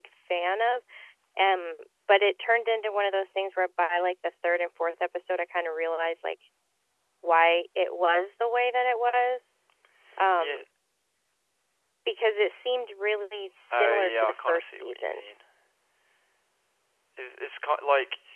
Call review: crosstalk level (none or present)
present